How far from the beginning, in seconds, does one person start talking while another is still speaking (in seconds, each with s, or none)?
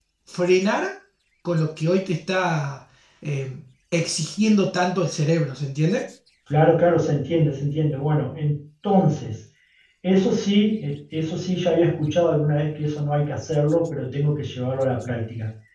none